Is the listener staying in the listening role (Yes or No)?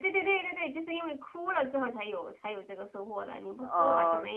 No